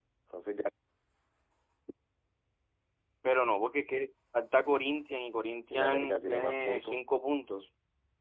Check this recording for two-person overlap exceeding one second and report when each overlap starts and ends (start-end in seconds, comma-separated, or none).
5.7-7.0